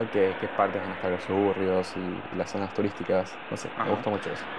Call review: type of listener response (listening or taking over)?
taking over